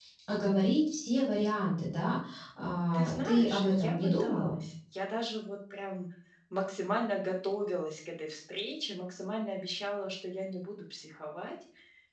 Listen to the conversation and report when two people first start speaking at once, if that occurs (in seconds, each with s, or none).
2.9 s